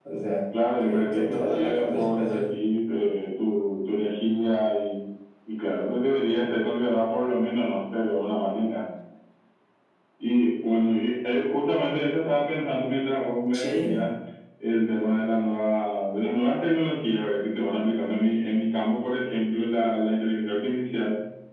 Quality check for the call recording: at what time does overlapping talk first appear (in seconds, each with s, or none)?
0.8 s